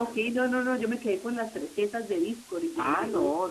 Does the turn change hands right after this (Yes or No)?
Yes